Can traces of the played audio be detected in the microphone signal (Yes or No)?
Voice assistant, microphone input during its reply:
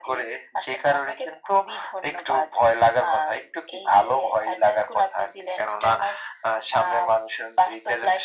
Yes